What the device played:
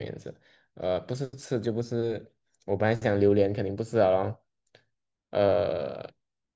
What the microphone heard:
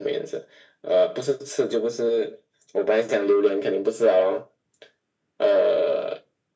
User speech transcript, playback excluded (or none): none